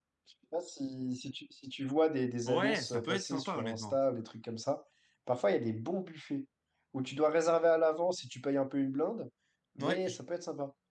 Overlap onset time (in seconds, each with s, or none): 2.5 s